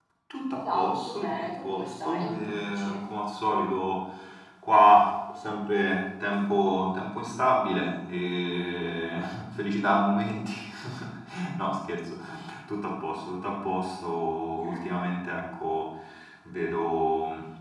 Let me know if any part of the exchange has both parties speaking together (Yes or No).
Yes